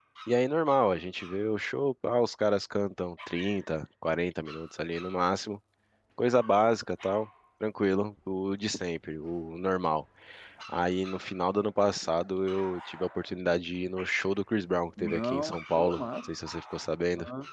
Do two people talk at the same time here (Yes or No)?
Yes